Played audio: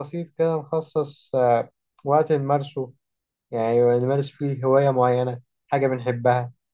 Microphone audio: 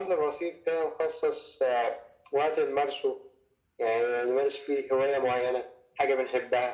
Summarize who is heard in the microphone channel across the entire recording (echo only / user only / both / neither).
echo only